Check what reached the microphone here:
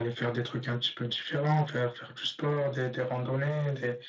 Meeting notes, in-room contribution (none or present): none